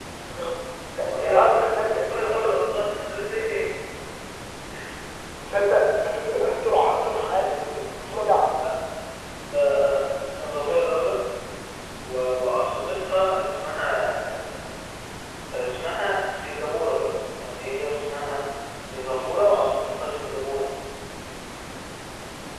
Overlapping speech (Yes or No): Yes